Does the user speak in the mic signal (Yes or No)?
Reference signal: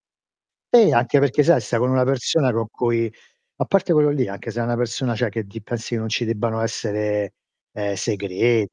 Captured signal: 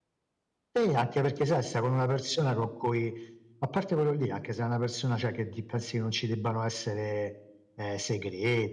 No